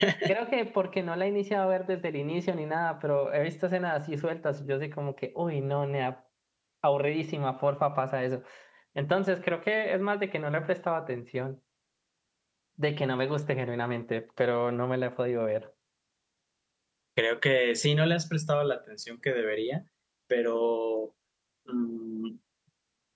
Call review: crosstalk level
none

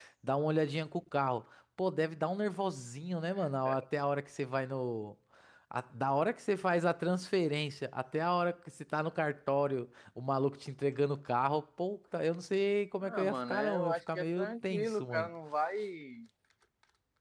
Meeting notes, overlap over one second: present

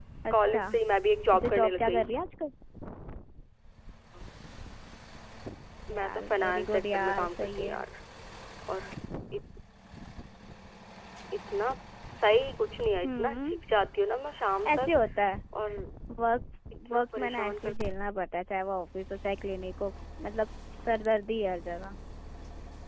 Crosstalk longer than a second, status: present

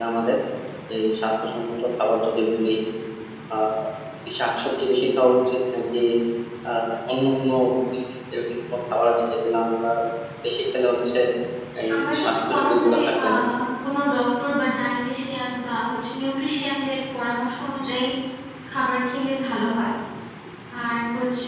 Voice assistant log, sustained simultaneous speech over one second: present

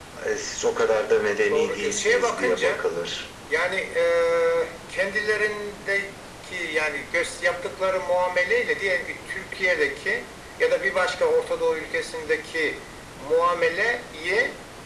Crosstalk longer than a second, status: present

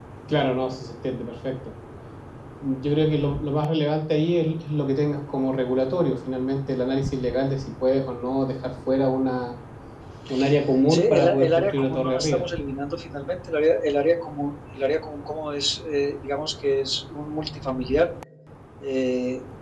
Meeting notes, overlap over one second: present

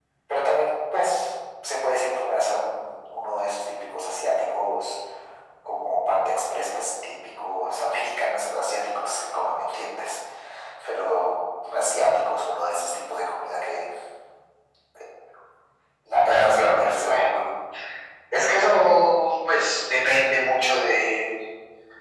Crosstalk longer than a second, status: present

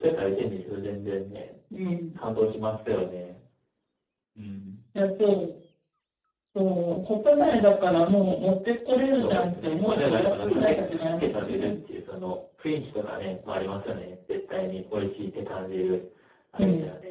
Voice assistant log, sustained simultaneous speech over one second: present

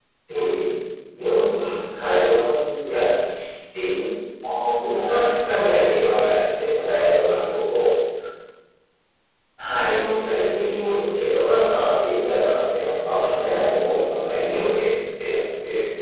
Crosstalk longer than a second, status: none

